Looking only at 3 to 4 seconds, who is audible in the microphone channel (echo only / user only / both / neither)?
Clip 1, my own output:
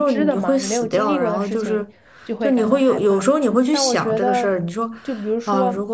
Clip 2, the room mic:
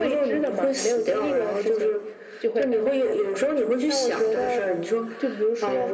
echo only